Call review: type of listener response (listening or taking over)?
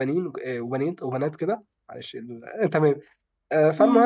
listening